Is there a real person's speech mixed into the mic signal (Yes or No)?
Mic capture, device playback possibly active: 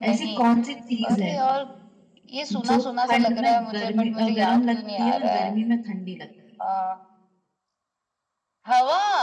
Yes